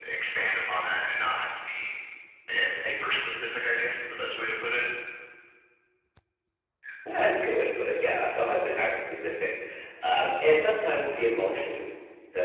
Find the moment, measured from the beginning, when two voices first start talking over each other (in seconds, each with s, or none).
none